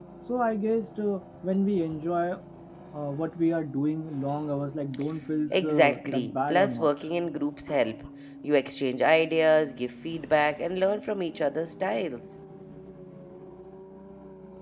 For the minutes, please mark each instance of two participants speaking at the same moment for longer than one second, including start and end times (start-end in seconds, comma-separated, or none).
5.5-6.9